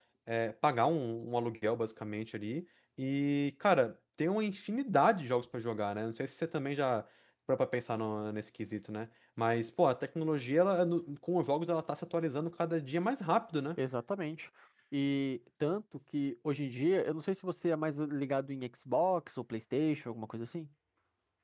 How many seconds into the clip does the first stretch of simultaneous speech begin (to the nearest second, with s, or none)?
none